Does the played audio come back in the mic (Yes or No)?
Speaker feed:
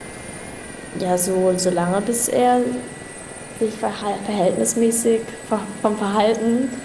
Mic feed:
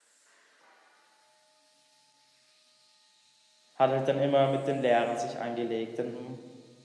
No